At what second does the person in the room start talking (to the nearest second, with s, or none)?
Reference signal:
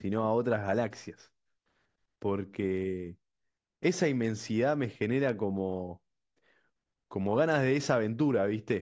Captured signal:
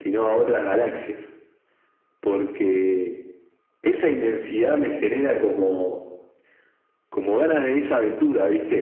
none